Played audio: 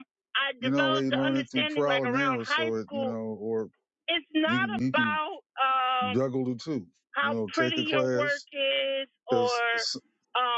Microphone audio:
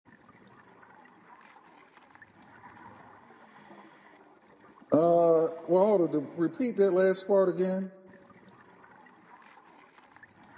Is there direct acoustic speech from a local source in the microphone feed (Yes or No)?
Yes